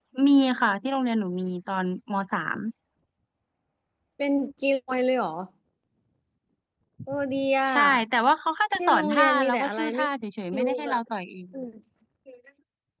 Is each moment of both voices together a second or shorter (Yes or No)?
No